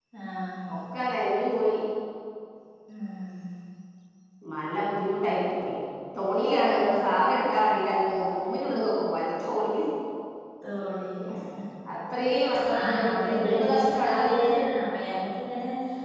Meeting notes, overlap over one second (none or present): present